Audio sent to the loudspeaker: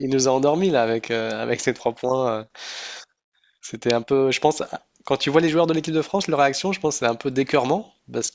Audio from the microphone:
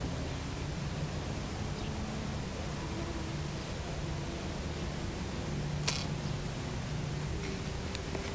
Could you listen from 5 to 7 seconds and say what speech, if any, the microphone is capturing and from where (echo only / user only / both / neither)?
neither